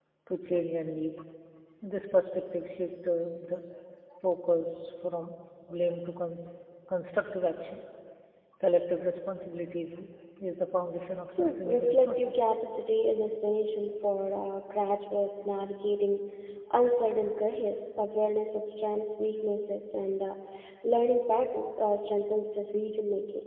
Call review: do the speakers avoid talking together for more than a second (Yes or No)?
No